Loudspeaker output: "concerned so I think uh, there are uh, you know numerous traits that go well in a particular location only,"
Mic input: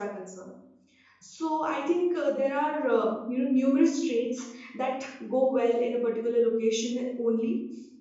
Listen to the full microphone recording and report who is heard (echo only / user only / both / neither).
echo only